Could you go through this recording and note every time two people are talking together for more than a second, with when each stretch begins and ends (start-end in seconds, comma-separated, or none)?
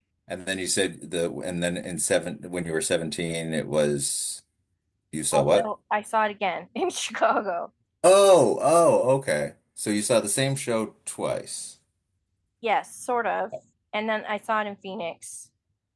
none